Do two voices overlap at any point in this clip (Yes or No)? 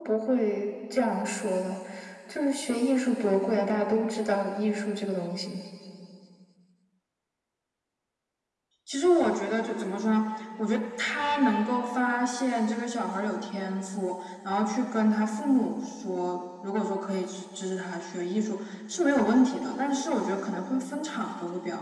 No